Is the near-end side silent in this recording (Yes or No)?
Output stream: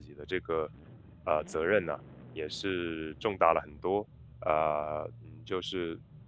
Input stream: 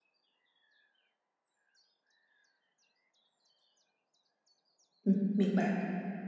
No